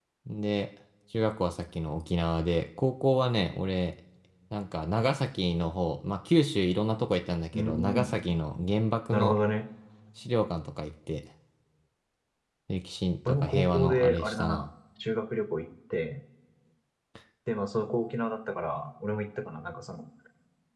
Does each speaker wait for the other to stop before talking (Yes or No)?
No